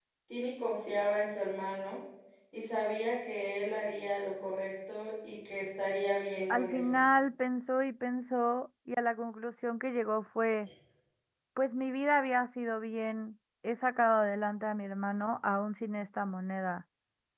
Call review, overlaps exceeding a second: none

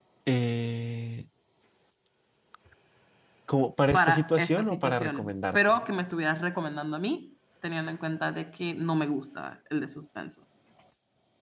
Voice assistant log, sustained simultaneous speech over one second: present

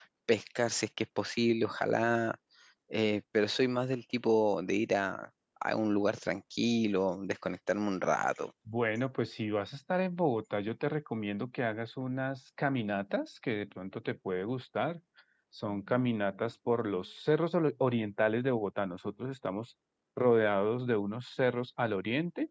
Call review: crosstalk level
none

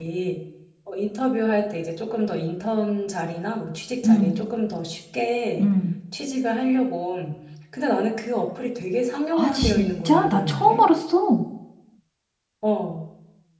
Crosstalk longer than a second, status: present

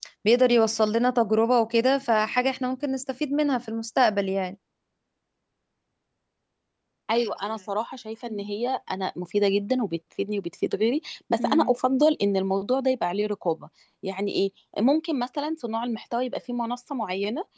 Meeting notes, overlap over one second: none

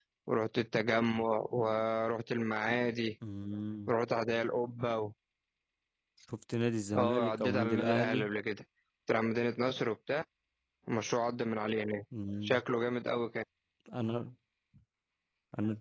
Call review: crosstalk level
present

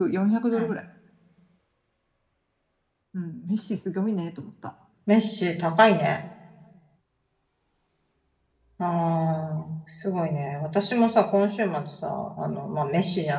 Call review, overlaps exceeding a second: none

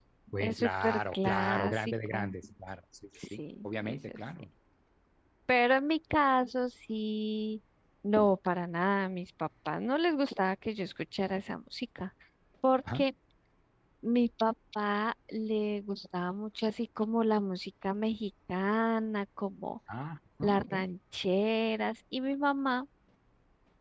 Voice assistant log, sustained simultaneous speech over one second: present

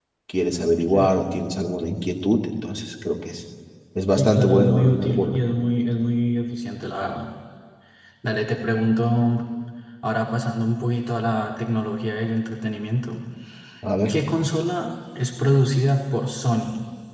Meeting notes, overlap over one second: present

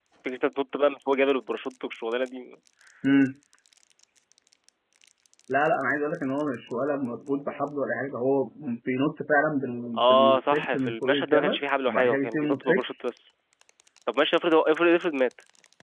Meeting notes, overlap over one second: present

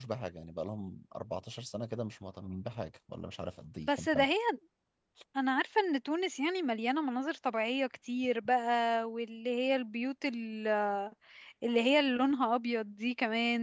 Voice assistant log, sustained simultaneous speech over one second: none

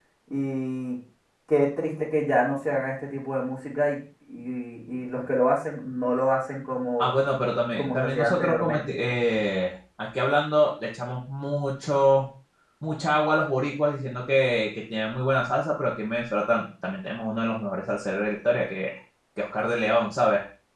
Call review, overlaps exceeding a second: present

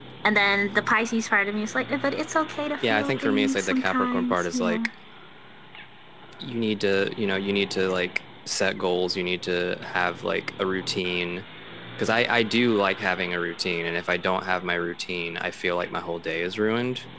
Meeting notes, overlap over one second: present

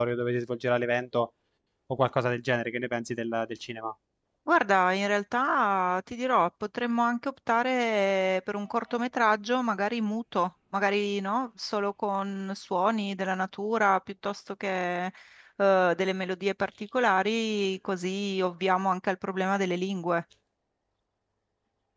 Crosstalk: none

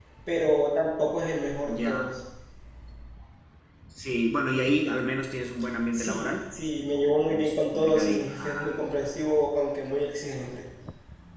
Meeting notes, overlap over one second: present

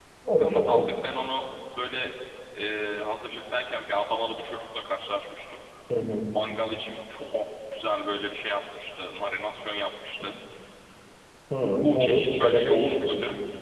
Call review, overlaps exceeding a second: present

